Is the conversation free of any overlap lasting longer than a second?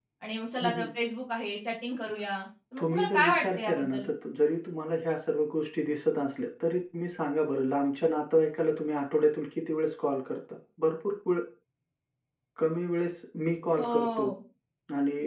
No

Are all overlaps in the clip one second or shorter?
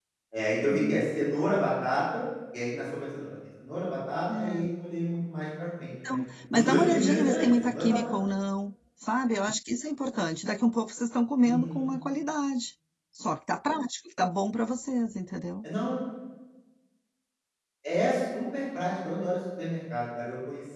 No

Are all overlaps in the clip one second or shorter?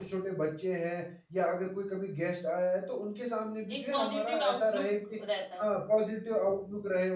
No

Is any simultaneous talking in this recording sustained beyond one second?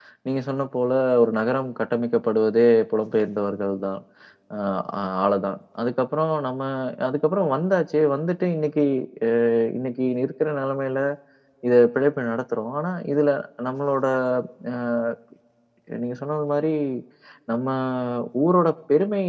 No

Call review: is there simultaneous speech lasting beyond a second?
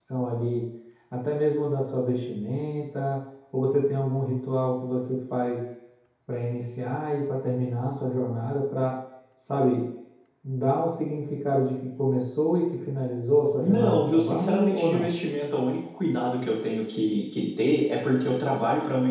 Yes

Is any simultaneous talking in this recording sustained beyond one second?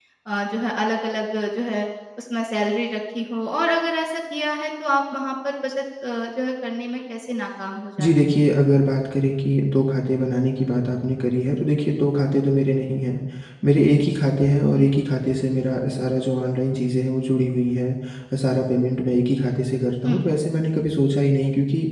No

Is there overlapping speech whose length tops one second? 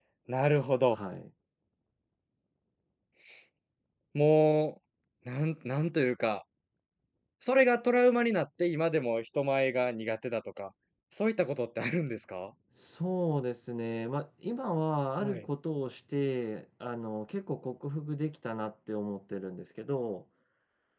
No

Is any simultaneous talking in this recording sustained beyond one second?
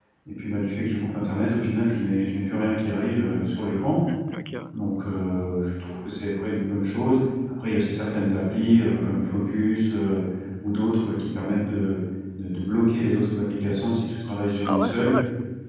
No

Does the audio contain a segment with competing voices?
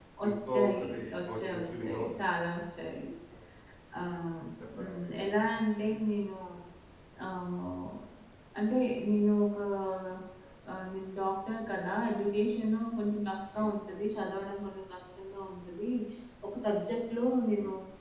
Yes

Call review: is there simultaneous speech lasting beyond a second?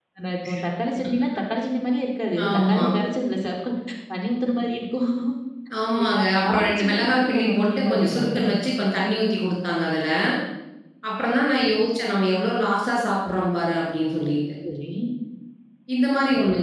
Yes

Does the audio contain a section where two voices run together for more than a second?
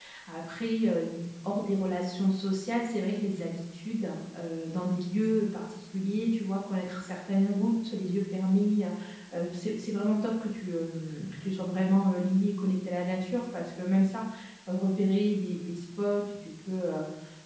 No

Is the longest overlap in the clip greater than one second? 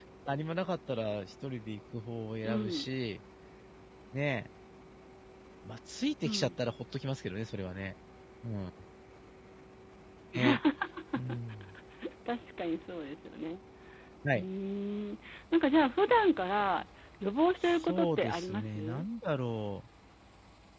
Yes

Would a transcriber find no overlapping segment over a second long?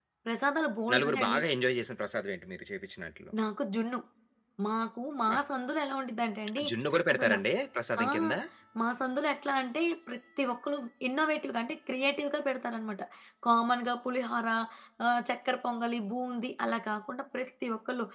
Yes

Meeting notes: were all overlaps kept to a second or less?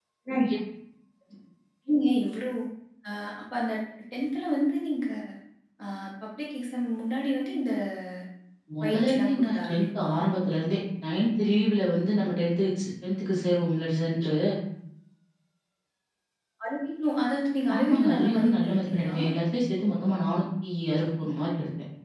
No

